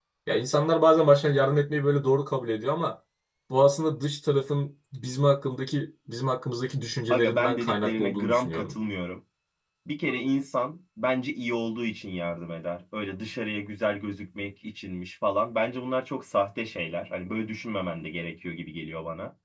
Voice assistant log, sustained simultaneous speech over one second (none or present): present